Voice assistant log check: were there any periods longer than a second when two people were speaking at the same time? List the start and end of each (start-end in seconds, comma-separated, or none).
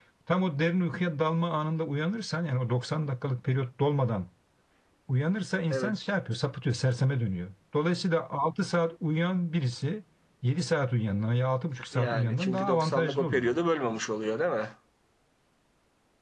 11.9-13.6